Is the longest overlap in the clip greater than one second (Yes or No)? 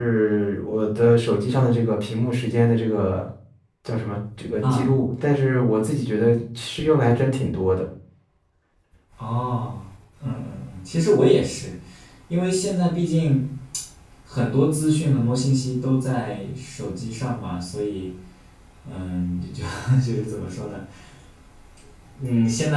No